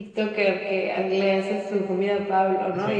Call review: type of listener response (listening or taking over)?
taking over